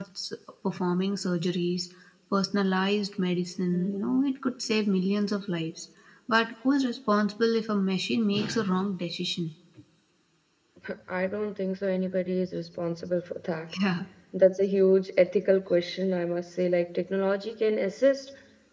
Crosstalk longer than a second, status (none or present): none